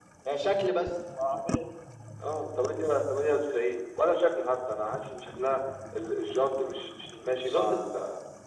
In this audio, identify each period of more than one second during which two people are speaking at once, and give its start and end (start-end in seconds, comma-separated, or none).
none